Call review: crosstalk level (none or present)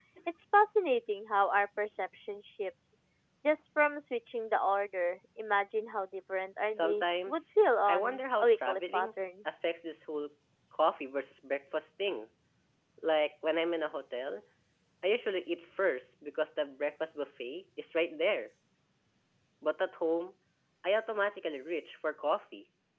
present